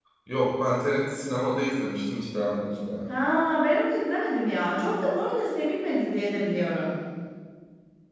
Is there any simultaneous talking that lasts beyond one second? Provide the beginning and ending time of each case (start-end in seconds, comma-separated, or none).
none